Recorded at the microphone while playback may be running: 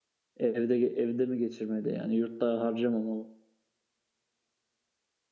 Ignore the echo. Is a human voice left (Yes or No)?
Yes